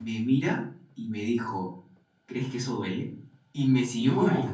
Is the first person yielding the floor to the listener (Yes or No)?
No